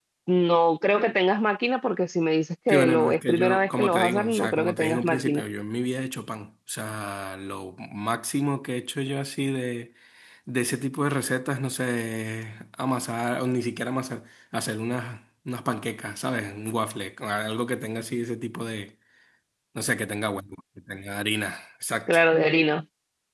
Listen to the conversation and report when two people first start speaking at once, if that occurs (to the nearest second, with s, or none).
3 s